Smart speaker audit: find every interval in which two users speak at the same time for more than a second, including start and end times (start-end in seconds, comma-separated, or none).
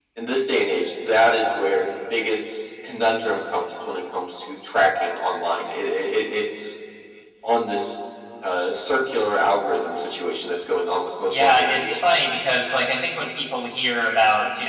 11.3-12.5